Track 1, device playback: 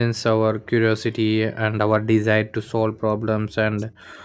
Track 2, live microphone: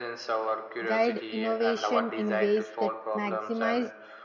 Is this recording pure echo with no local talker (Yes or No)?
No